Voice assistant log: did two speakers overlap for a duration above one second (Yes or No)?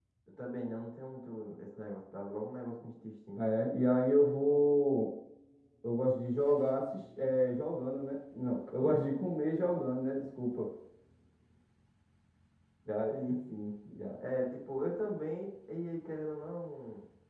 No